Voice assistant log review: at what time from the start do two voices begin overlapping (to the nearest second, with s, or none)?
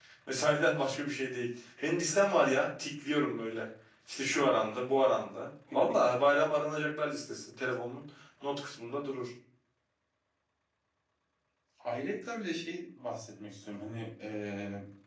none